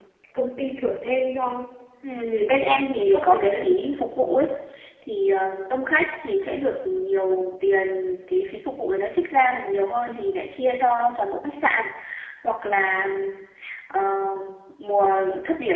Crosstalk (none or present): present